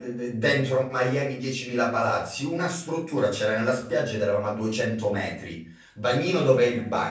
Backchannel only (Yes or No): Yes